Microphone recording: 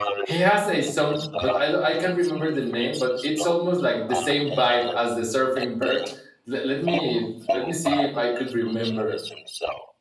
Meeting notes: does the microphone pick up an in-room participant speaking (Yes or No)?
Yes